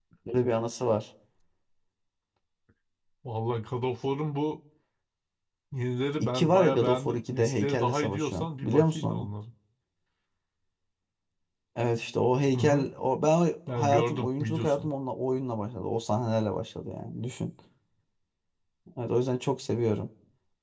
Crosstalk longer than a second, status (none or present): present